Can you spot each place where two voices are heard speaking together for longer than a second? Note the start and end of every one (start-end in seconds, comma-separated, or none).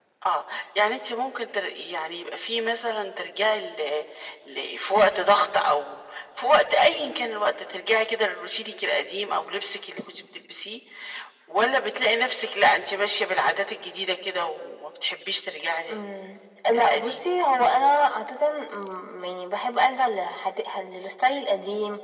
none